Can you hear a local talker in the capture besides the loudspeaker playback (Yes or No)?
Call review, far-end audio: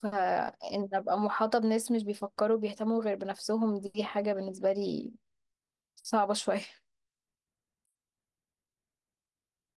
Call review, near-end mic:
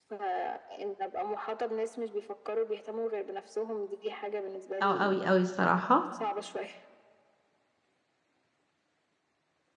Yes